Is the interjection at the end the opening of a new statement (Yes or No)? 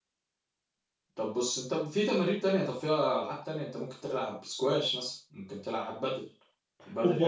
Yes